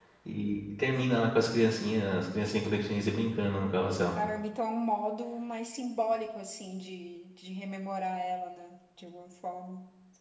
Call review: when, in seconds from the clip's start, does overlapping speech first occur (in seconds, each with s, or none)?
none